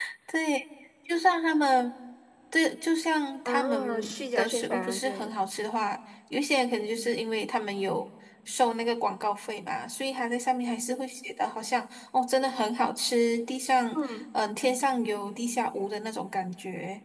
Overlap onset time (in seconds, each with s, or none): 3.4 s